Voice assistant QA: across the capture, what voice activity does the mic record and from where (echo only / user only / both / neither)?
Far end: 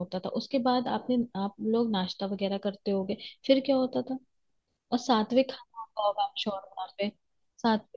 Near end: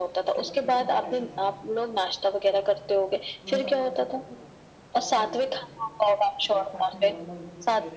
both